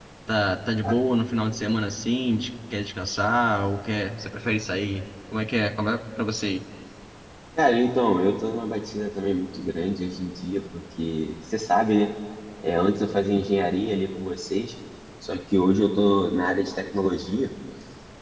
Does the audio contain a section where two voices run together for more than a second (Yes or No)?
No